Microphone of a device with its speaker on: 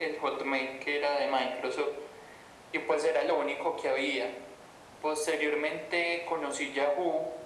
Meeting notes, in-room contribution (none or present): none